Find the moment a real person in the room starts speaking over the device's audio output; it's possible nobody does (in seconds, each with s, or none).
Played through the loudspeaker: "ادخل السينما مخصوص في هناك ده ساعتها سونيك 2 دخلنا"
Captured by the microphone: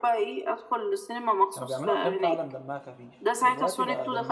1.5 s